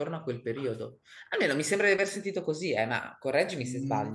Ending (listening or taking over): taking over